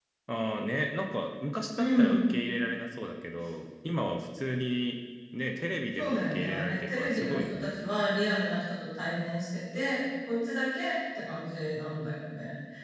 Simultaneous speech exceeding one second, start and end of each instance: 5.9-7.7

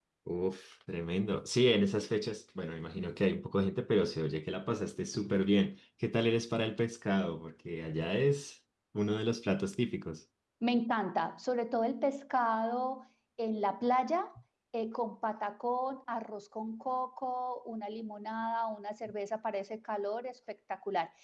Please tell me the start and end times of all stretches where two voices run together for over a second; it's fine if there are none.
none

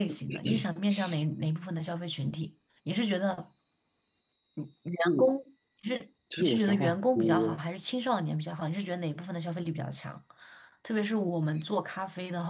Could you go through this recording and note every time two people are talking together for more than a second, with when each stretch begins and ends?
6.4-7.6

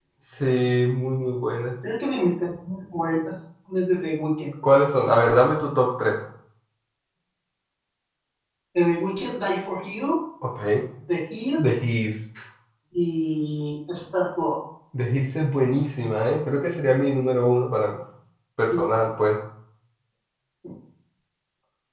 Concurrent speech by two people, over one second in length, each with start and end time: none

